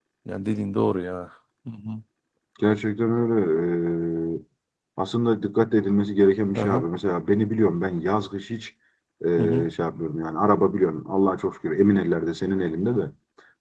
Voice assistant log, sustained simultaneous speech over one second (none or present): none